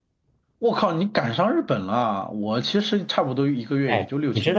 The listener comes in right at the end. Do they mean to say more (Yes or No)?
Yes